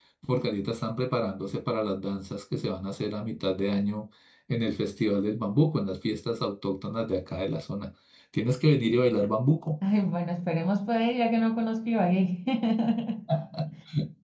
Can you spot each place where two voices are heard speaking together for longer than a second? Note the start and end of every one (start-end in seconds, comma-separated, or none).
none